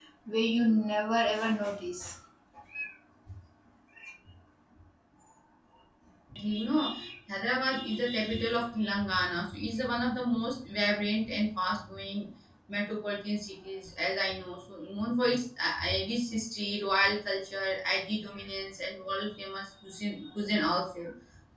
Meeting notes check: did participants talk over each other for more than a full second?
No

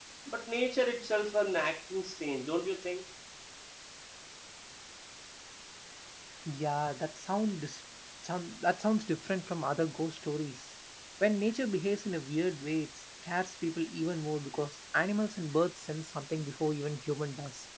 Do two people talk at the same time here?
No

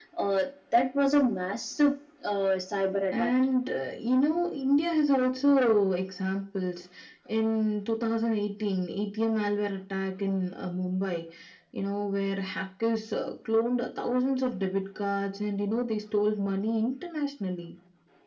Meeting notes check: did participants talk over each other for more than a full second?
No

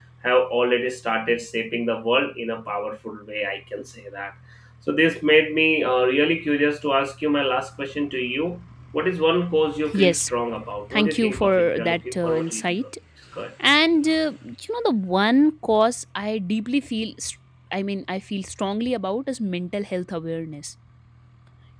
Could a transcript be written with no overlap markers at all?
No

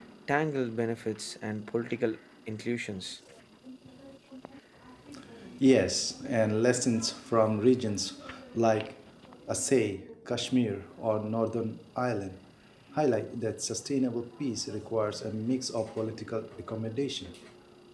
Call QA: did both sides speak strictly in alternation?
Yes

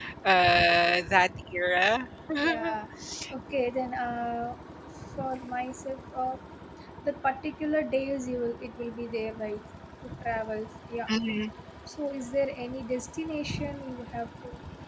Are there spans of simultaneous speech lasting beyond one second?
No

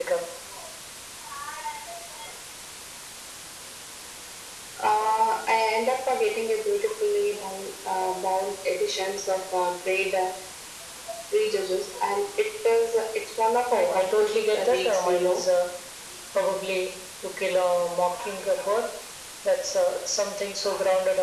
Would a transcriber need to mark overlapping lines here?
Yes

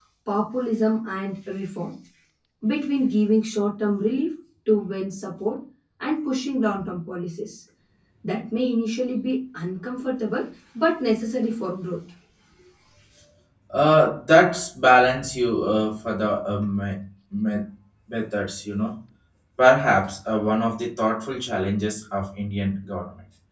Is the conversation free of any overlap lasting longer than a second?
Yes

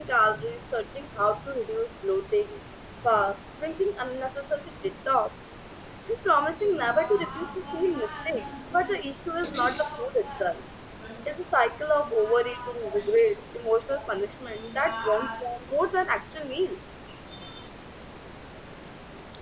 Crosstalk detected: Yes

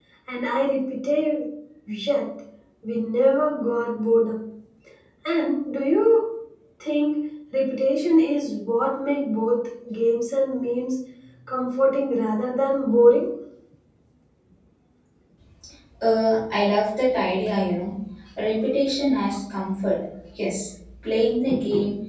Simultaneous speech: No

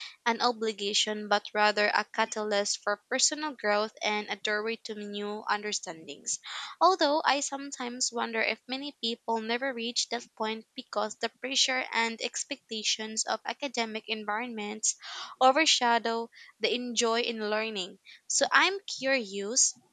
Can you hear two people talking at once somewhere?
No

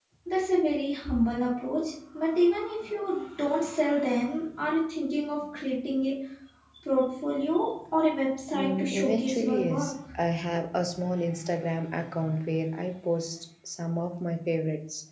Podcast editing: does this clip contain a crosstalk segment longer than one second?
Yes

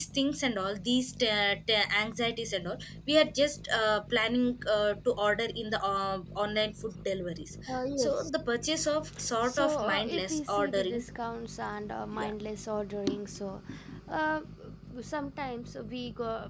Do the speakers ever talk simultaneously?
Yes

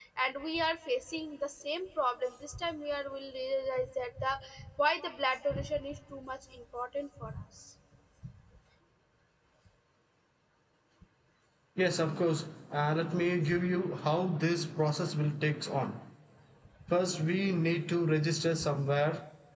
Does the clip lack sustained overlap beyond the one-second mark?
Yes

